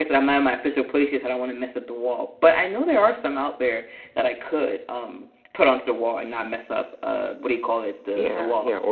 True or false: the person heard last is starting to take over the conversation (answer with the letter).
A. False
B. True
B